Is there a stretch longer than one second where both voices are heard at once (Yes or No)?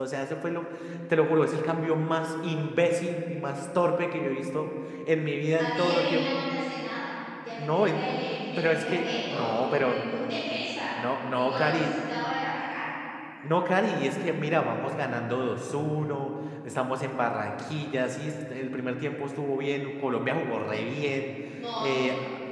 Yes